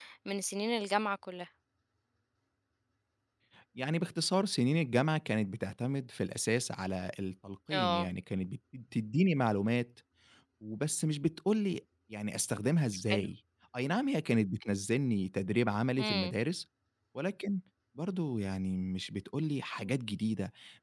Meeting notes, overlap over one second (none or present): none